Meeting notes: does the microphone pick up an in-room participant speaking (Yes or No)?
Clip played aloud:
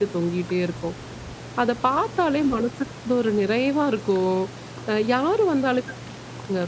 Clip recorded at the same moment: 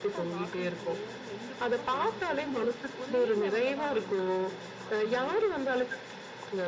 Yes